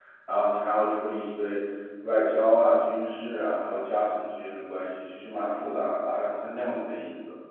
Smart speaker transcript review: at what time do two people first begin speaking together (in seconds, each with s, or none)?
none